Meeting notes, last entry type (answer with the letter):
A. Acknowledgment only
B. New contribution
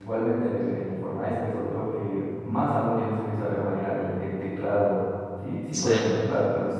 A